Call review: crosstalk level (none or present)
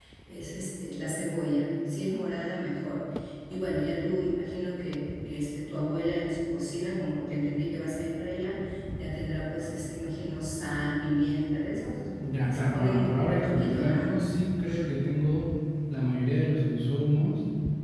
present